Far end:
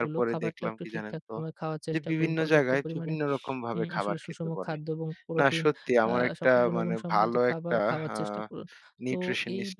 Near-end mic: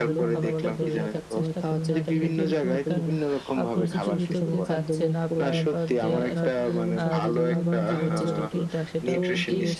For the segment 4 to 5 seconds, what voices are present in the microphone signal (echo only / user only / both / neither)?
both